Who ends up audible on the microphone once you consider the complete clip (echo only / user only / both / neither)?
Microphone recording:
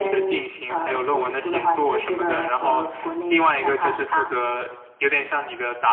echo only